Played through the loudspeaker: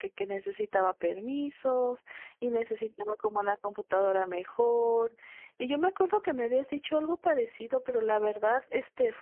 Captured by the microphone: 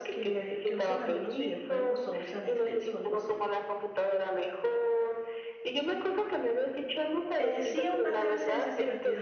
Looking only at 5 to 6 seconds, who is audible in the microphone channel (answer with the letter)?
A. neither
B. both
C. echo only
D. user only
C